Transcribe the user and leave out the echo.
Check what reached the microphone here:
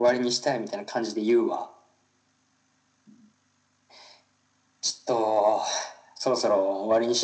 none

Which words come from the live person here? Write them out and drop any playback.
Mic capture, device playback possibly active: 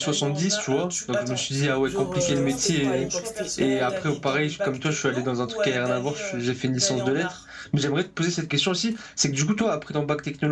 genre euh, c'était quoi à l'époque c'était L

